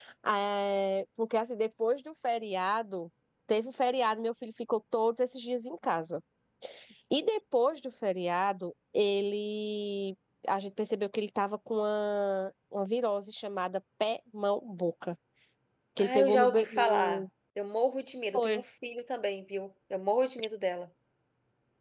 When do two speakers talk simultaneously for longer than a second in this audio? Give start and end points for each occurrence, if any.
16.0-17.2

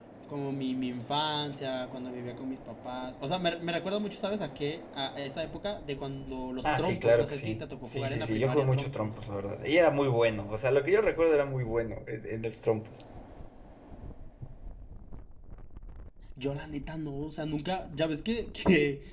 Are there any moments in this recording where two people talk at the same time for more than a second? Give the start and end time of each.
6.6-9.2

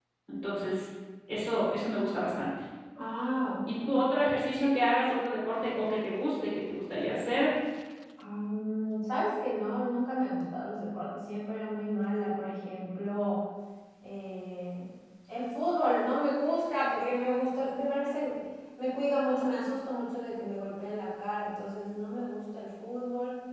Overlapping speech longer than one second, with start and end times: none

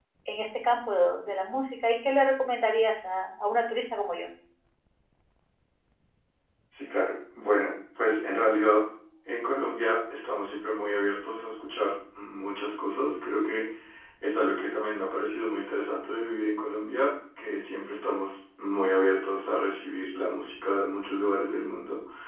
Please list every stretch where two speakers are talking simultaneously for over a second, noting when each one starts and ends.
none

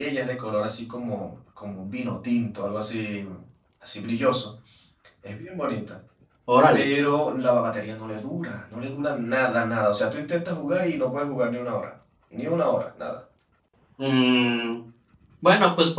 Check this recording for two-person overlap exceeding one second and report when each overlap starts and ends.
none

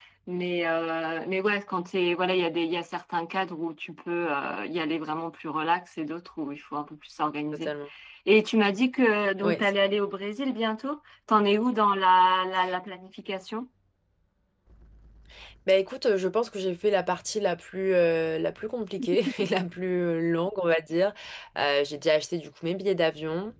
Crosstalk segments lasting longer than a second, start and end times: none

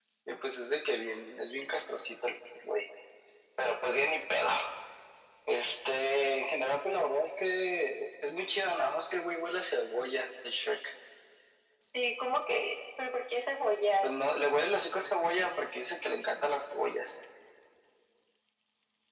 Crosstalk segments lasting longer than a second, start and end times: none

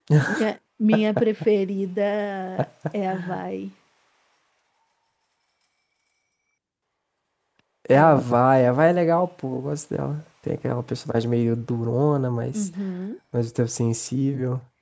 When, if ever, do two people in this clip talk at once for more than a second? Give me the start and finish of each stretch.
none

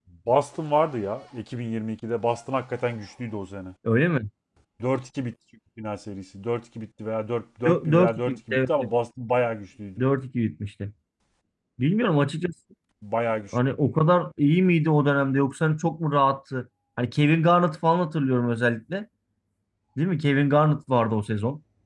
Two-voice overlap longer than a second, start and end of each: 7.7-8.9

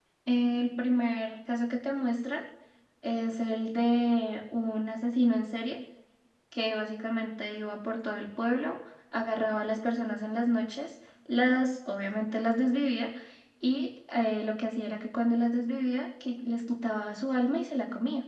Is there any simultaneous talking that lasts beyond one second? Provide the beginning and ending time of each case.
none

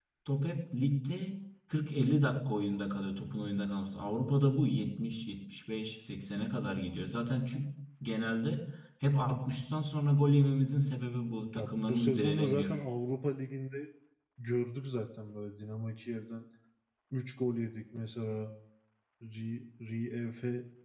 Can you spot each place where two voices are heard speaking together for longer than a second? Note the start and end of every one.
11.6-12.8

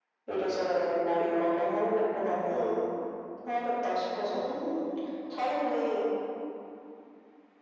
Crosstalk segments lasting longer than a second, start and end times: none

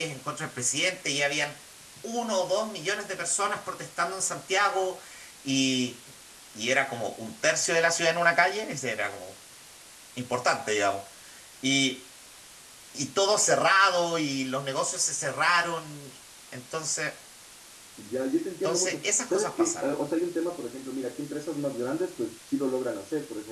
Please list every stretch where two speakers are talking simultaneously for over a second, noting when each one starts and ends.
18.6-19.9

